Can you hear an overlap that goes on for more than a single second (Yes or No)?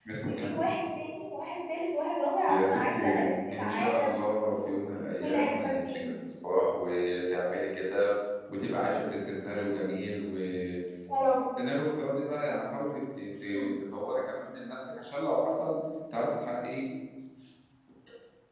Yes